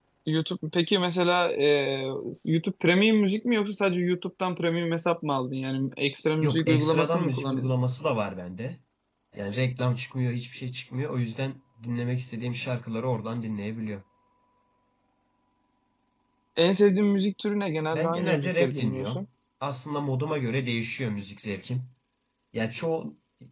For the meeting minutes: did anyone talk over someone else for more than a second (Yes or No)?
Yes